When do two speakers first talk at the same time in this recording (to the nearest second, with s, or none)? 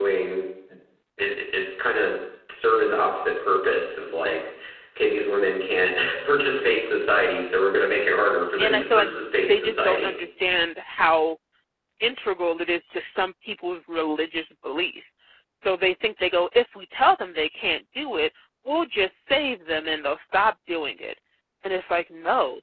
9 s